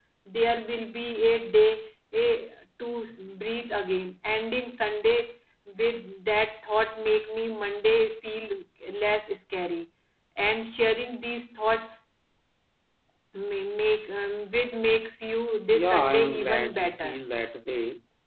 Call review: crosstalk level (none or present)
present